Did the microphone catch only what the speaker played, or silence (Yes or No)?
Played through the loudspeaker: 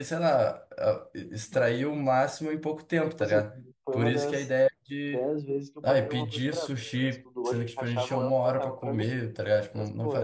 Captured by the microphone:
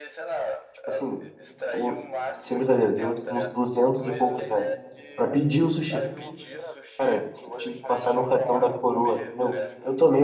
No